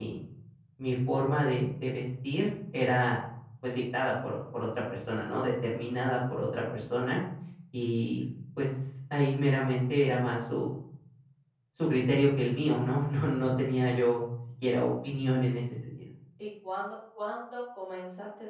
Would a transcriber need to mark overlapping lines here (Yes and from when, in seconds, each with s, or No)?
No